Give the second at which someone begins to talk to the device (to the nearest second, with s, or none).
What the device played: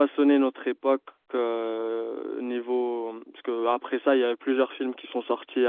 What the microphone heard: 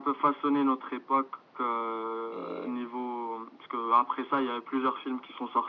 2 s